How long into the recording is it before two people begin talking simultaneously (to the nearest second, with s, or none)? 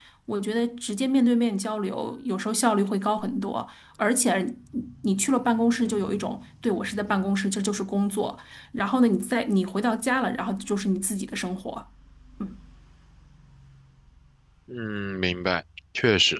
none